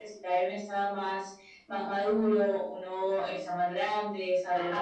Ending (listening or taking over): taking over